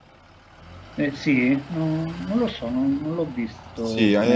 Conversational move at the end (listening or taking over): taking over